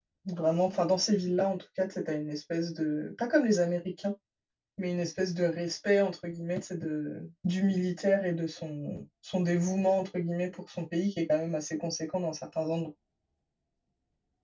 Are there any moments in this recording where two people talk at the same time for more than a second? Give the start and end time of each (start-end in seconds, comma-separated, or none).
none